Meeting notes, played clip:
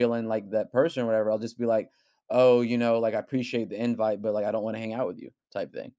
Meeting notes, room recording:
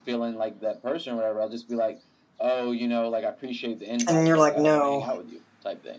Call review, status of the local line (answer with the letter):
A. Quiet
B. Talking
B